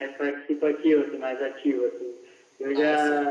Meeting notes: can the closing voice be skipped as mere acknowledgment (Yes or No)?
Yes